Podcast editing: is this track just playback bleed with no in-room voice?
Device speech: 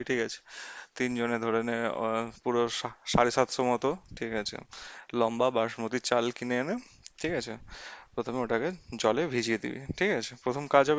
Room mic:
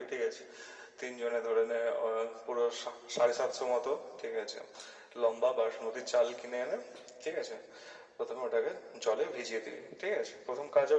Yes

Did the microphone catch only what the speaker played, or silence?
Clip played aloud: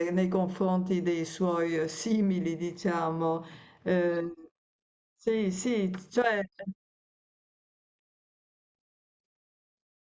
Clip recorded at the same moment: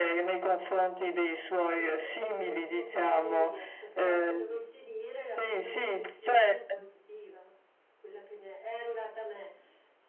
No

